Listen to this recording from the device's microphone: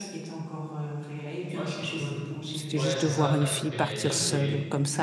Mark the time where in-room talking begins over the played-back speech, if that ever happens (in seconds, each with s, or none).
2.5 s